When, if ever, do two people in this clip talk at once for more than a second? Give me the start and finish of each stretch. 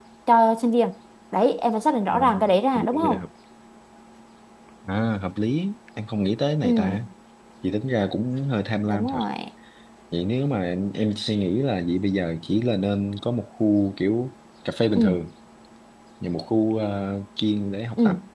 none

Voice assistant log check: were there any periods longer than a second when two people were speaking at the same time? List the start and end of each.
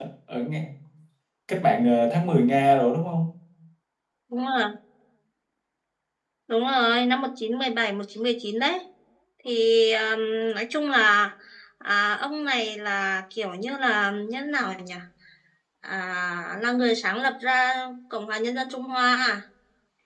none

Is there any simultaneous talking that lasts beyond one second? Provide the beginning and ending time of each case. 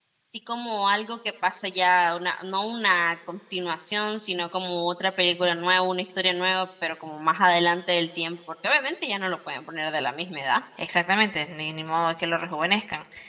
none

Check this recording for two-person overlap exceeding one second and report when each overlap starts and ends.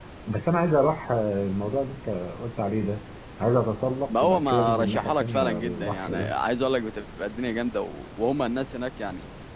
4.1-6.3

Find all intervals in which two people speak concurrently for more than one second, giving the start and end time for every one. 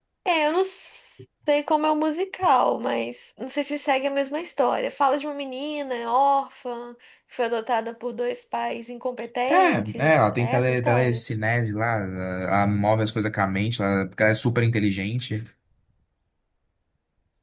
9.5-11.2

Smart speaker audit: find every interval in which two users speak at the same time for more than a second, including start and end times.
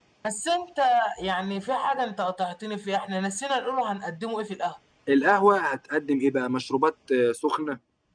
none

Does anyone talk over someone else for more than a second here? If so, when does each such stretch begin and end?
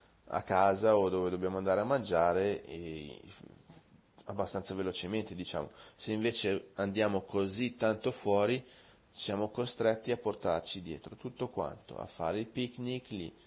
none

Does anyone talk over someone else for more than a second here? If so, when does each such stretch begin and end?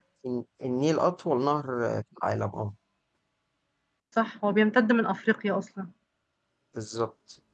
none

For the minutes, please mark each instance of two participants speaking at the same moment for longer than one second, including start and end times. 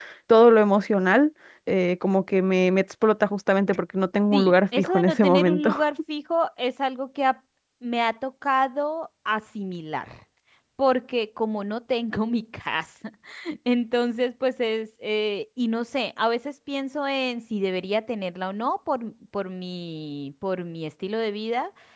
4.3-5.7

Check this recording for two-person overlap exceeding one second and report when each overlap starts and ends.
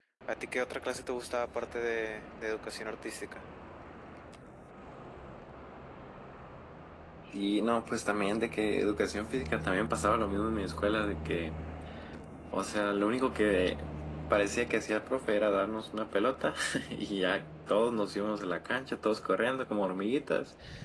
none

